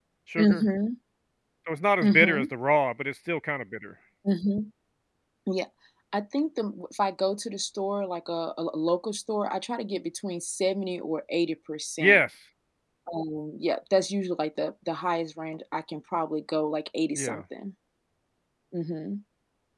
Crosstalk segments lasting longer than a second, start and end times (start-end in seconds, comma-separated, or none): none